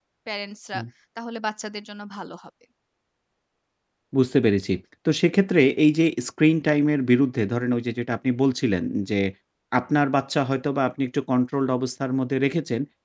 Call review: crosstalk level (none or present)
none